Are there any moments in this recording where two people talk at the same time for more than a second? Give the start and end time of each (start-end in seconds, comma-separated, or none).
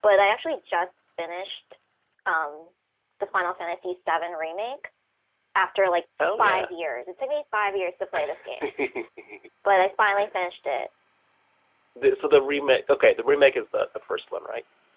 none